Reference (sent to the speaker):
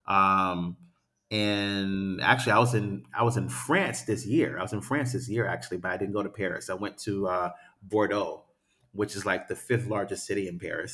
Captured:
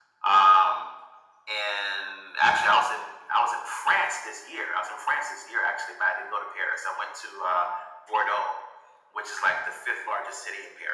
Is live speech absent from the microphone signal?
Yes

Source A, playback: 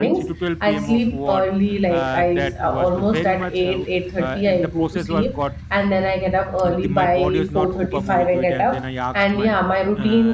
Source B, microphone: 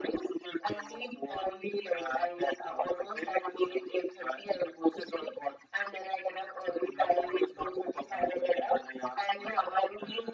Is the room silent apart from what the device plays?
Yes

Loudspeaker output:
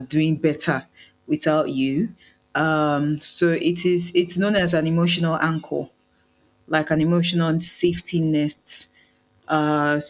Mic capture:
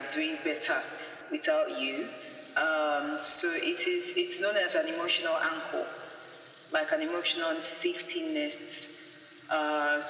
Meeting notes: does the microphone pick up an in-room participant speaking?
No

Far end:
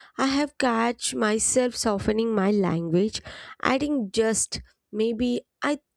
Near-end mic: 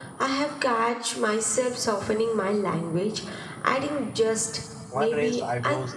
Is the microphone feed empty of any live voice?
No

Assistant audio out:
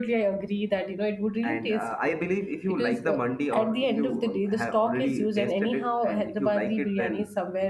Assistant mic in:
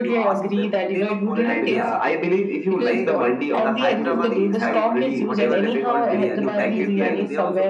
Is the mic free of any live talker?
No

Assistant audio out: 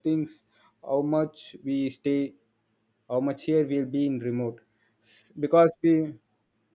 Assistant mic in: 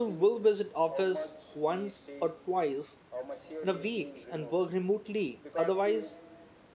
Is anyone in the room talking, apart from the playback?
Yes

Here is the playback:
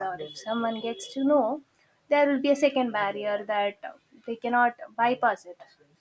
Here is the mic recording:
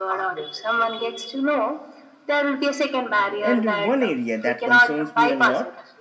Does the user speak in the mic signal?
Yes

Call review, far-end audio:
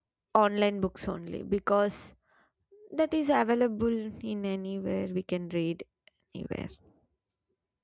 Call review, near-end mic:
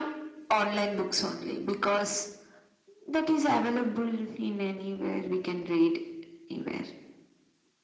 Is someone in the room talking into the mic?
No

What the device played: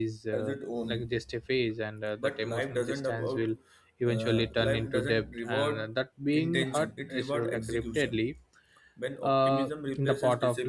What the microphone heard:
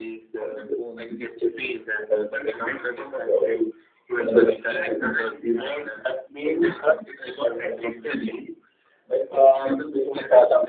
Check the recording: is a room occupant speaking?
No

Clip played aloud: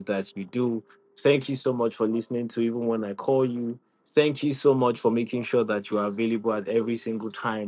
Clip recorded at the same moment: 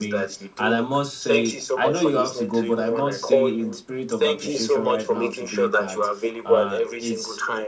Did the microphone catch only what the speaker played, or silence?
No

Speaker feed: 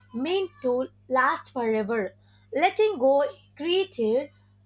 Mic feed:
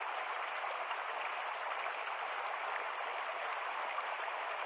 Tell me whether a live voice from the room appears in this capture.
No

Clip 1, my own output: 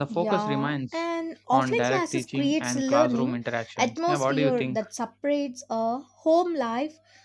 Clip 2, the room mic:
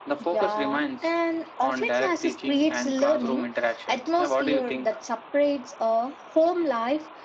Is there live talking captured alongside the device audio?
No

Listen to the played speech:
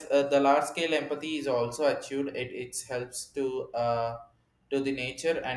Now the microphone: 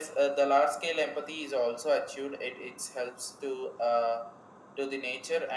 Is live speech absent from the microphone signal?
Yes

